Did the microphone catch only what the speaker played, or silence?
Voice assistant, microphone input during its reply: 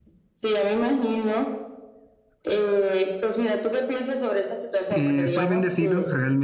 No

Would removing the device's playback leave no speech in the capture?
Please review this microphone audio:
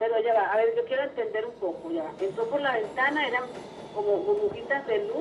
Yes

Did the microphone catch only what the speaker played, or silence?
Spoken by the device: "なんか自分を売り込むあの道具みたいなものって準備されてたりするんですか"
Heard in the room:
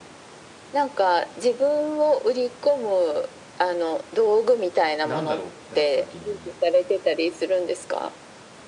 No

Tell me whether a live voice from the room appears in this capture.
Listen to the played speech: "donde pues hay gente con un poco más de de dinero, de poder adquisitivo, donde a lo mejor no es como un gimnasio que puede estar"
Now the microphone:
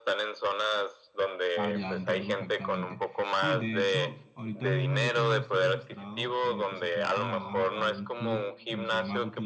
Yes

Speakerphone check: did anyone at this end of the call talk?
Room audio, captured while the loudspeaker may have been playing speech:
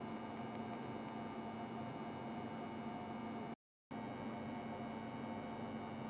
No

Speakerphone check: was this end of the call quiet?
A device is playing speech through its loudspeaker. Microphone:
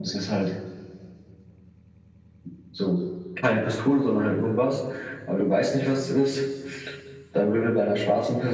Yes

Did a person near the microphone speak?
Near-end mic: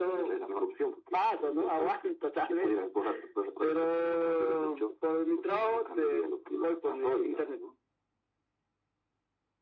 No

